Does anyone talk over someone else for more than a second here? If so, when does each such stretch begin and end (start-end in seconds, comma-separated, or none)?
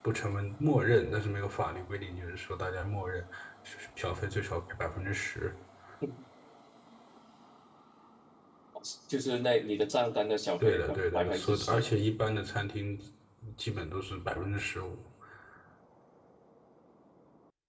10.6-11.9